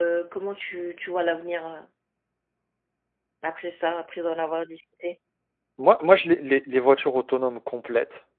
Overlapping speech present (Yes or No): No